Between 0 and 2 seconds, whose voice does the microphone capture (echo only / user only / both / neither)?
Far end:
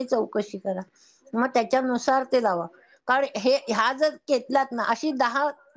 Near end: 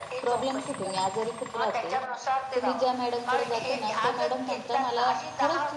both